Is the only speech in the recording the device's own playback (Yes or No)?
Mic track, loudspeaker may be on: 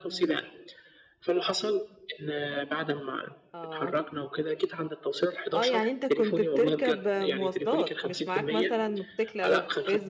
No